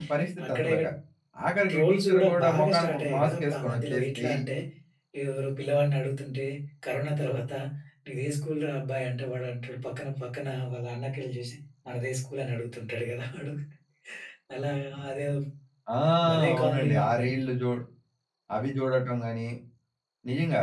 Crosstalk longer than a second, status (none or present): present